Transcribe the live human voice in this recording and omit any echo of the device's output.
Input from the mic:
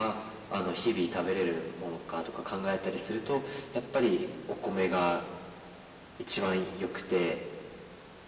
none

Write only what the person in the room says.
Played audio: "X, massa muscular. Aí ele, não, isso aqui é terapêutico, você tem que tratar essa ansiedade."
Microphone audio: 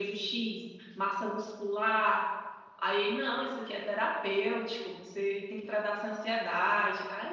none

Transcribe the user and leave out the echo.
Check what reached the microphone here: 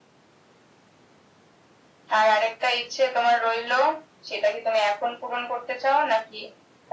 none

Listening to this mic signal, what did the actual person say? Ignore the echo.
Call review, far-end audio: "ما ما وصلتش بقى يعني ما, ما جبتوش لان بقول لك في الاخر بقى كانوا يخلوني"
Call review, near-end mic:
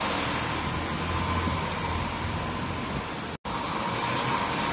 none

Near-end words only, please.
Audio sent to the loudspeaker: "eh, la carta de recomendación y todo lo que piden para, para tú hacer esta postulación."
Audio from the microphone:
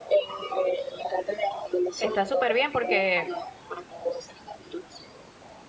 Está súper bien porque,

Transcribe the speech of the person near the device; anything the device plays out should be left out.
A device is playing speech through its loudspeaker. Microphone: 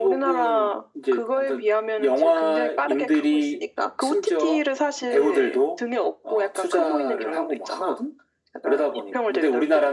none

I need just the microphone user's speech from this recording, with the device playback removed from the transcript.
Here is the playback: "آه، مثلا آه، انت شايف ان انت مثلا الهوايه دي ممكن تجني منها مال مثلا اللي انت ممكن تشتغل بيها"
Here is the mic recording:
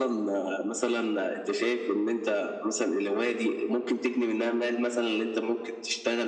none

